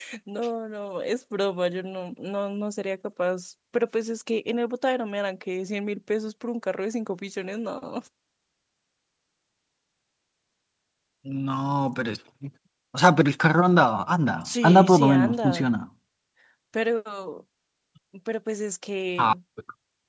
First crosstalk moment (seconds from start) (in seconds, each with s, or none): 14.4 s